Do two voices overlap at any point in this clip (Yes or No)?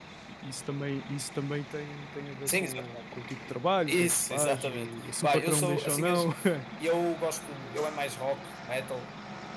Yes